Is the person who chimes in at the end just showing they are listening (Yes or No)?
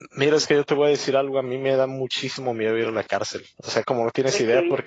Yes